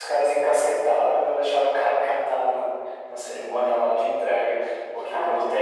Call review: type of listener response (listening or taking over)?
listening